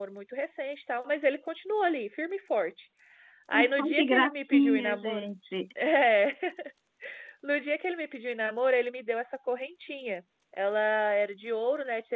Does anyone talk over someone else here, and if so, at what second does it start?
3.5 s

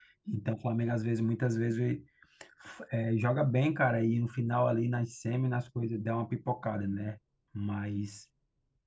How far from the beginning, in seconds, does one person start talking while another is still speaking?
none

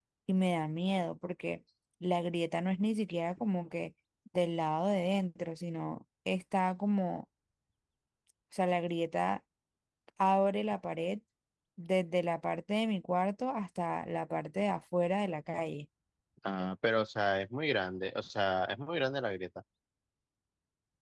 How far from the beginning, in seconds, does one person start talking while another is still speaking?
none

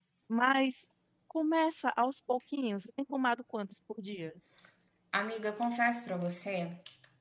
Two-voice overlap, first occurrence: none

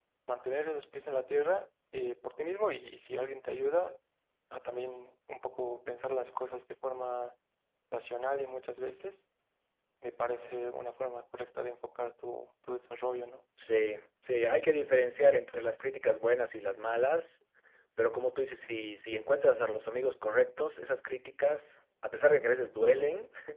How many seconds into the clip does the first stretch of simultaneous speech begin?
none

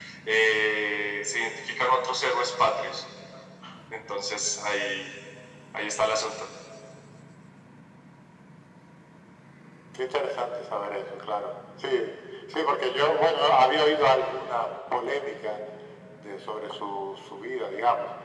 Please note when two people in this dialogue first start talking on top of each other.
none

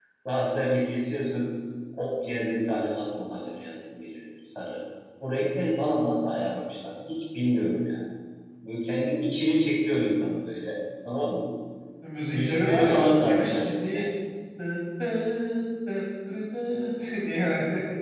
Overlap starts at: 12.3 s

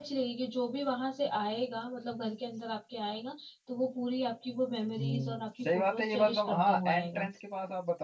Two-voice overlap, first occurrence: 5.0 s

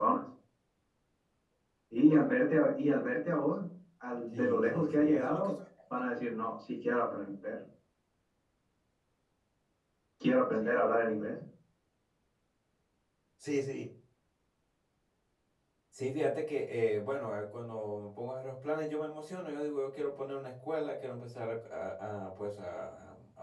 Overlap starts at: 4.3 s

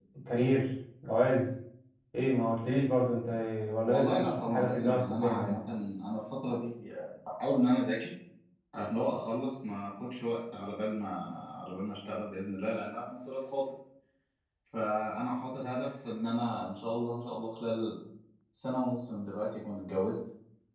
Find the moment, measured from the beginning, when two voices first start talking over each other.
3.9 s

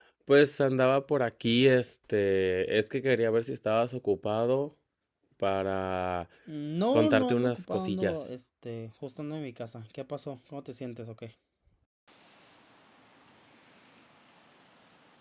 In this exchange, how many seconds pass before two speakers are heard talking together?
6.9 s

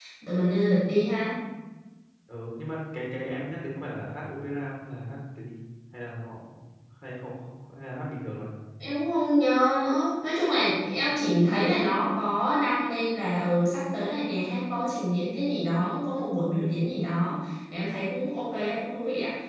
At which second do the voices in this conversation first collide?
none

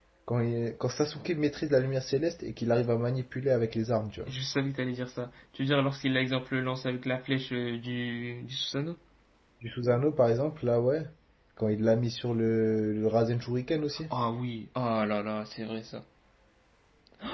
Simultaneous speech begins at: none

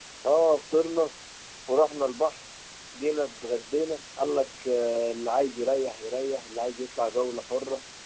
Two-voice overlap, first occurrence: none

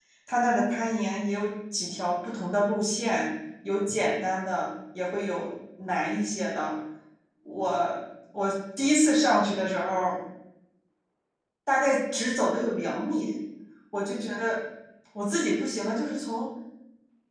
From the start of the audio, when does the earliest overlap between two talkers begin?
none

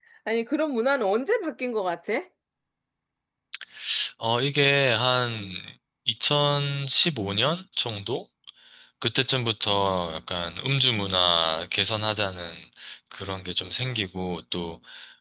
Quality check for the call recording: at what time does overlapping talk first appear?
none

